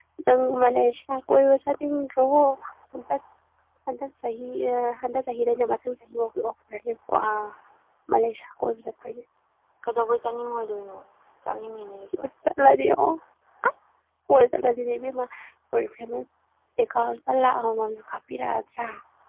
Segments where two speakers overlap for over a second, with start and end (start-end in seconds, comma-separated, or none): none